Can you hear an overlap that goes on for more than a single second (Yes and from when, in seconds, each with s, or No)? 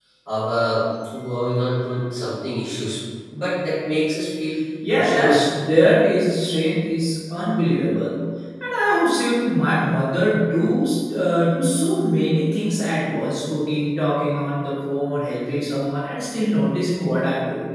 No